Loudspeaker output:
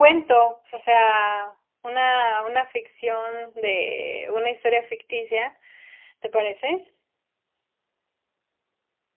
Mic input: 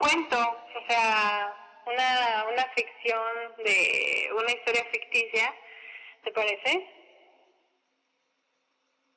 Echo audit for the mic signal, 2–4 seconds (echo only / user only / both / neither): echo only